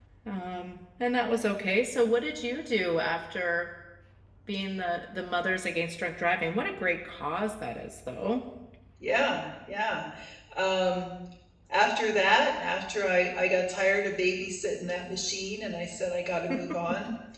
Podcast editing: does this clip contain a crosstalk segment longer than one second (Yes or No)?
No